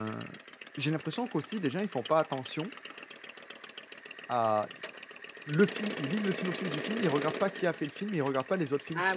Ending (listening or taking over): taking over